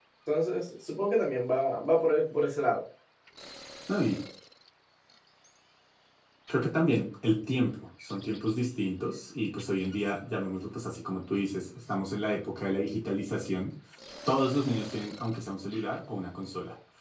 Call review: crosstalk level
none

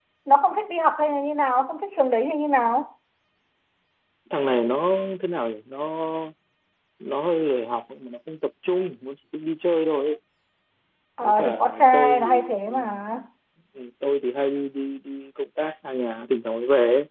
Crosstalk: present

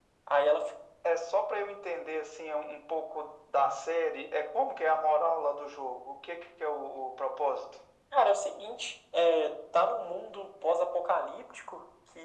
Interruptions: none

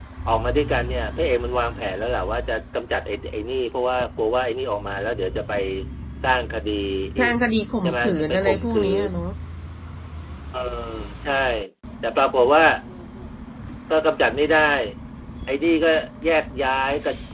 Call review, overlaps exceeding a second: present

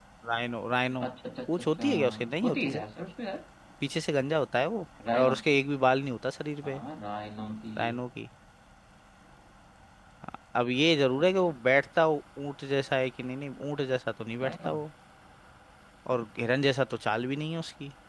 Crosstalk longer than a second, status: present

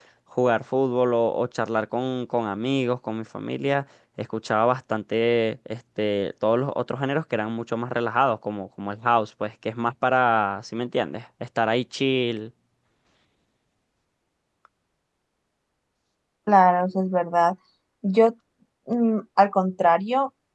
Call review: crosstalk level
none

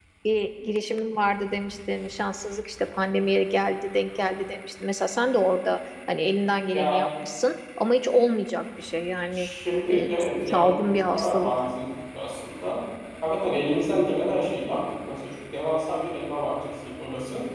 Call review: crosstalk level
present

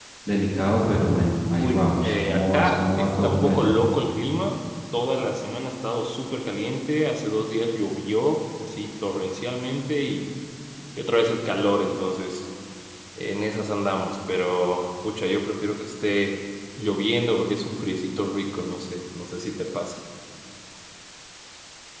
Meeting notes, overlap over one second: present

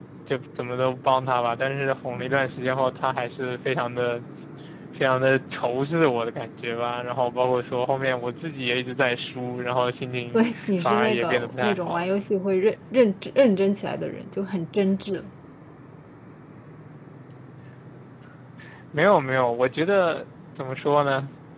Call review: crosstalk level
present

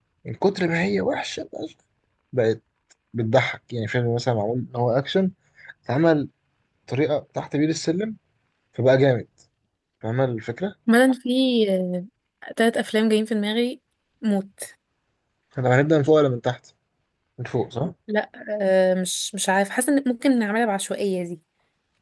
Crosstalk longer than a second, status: none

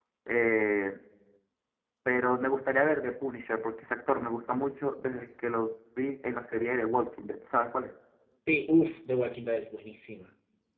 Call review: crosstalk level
none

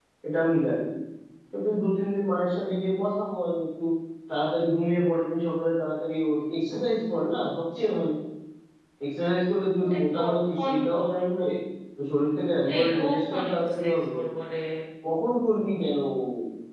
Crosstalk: present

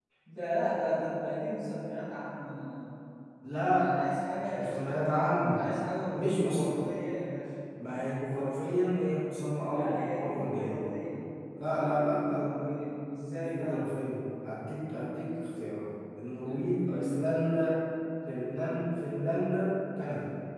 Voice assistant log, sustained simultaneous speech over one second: present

